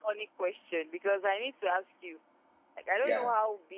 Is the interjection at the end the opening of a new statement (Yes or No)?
No